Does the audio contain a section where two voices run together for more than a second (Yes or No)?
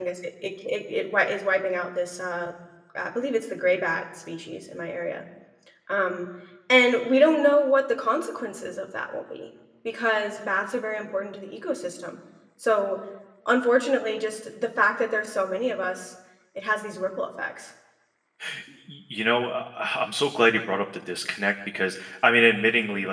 No